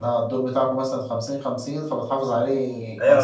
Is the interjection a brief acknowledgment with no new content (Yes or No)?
No